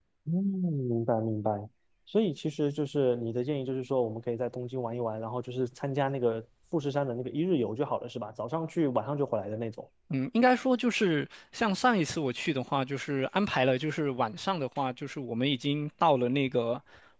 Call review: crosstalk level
none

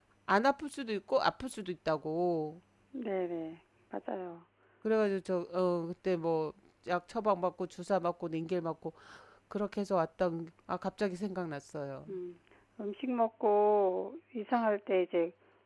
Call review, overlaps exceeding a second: none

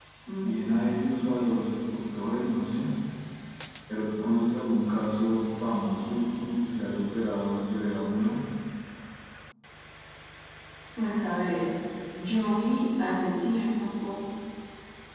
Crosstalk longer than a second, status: none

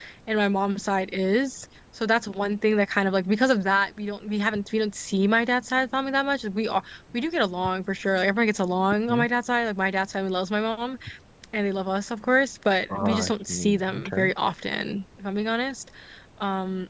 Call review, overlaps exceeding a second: present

